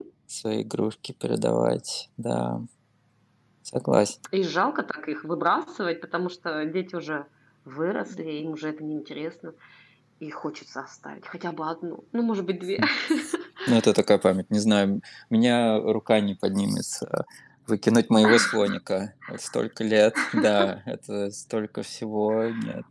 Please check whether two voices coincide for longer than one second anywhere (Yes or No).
No